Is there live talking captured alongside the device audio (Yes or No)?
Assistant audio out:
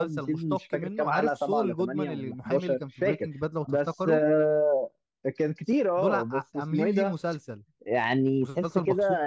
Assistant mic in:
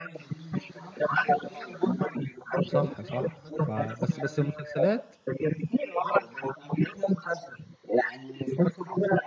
Yes